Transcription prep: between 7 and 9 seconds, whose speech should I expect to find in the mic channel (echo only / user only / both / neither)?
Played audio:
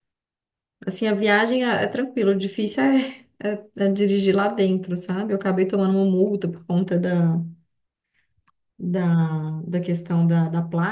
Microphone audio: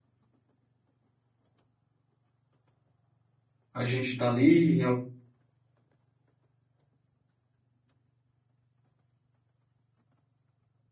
neither